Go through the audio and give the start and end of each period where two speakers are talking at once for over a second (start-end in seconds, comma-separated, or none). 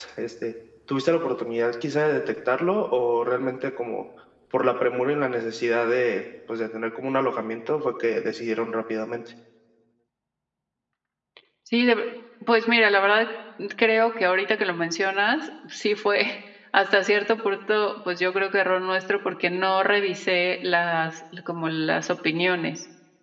none